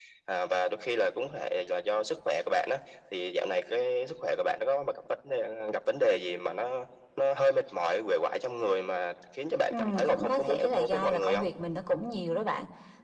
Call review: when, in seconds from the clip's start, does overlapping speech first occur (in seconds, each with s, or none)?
9.7 s